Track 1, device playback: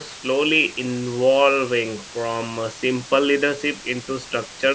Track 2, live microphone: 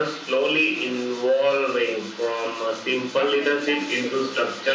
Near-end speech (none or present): present